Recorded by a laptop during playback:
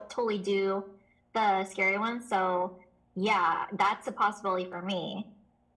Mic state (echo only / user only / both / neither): echo only